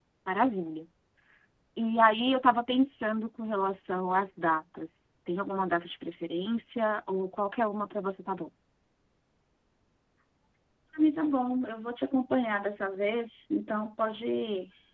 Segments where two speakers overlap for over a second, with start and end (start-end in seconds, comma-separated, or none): none